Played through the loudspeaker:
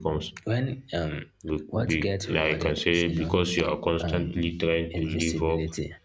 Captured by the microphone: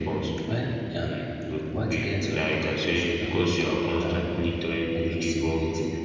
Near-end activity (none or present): none